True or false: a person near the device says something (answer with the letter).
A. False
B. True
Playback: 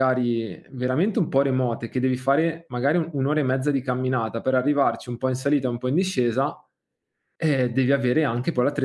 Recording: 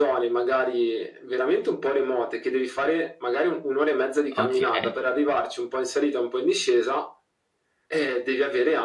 B